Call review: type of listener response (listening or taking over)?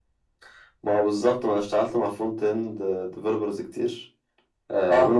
listening